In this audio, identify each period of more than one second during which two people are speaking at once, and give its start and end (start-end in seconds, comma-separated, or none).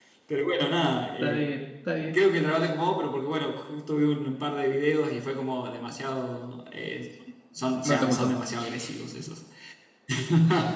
none